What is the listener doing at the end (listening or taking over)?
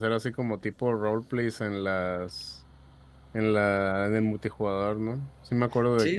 taking over